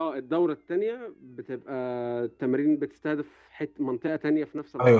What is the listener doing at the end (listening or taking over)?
taking over